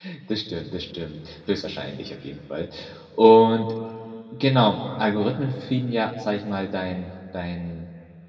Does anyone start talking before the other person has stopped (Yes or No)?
No